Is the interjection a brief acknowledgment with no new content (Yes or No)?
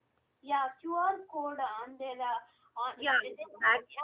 No